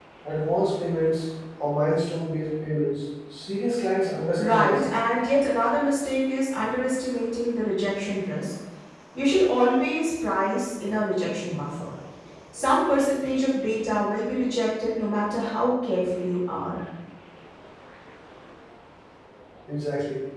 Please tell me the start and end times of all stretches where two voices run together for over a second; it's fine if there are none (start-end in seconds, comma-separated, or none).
none